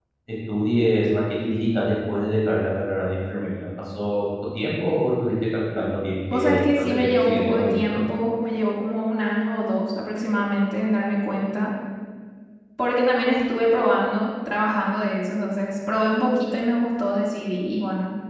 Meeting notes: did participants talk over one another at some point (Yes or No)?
Yes